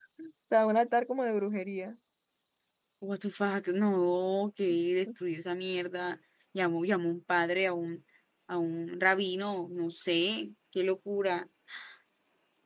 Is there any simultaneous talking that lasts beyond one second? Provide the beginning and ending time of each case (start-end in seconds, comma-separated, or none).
none